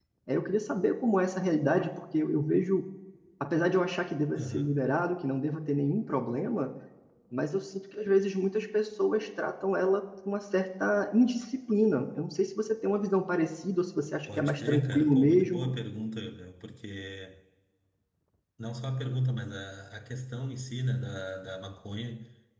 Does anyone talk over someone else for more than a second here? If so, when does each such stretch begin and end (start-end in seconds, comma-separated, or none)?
14.3-15.7